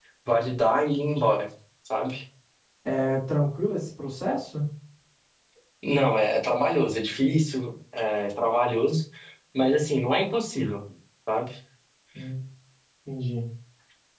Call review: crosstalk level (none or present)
none